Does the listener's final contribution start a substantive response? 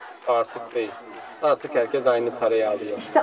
Yes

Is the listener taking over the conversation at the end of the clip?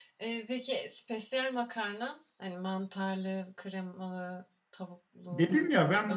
Yes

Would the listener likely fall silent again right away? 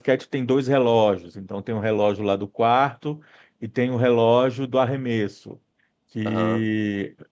Yes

